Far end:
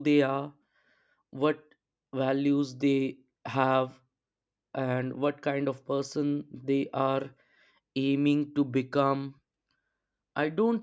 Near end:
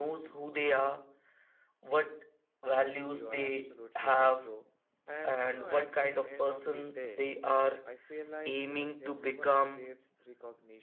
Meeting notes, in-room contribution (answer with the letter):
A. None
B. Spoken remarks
B